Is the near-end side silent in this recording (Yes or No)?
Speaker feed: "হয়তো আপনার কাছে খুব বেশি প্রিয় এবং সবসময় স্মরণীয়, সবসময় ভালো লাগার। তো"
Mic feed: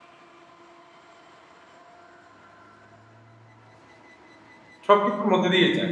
No